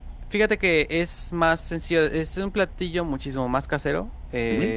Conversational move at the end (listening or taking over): listening